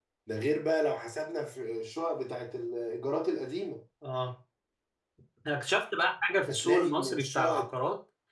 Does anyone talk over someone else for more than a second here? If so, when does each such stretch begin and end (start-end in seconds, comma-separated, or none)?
6.5-7.7